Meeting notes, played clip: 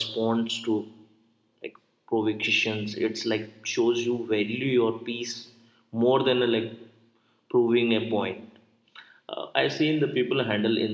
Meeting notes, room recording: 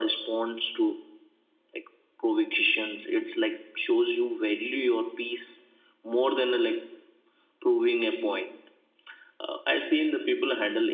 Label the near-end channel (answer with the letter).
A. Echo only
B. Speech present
A